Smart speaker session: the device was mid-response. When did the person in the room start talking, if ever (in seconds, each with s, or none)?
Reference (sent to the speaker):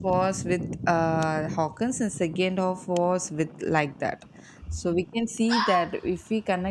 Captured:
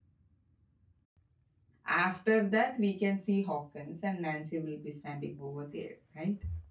1.9 s